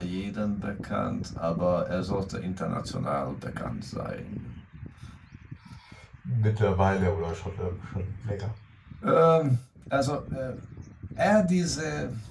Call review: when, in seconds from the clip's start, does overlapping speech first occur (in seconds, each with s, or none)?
none